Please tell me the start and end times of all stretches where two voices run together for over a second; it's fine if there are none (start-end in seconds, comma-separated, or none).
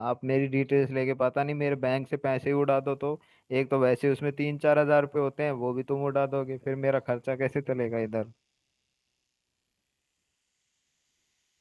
none